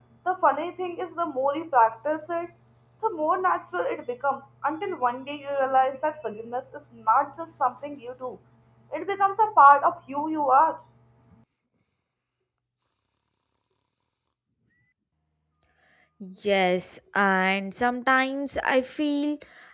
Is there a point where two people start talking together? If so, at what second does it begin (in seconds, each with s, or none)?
none